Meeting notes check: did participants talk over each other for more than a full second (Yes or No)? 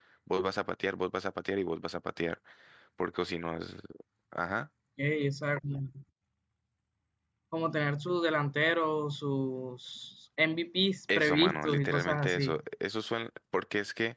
Yes